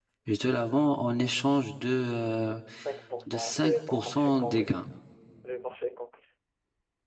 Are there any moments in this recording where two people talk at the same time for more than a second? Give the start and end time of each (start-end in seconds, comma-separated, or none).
3.3-4.8